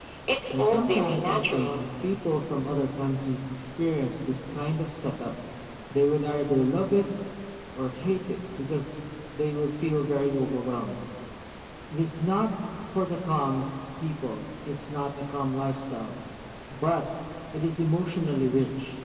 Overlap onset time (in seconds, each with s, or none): 0.6 s